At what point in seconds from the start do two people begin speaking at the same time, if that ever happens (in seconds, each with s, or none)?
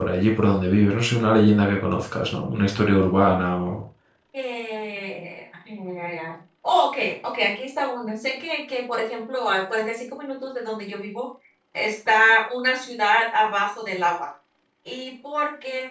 none